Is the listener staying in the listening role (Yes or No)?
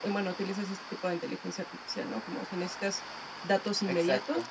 Yes